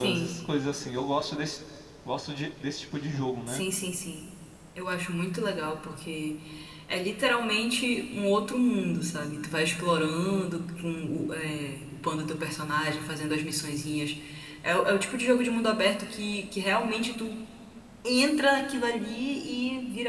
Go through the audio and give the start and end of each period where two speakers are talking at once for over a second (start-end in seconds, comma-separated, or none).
none